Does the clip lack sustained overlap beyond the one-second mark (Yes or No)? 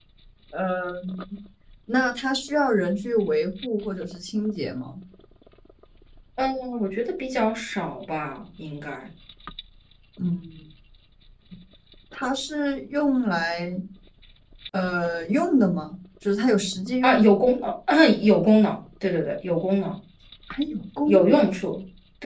Yes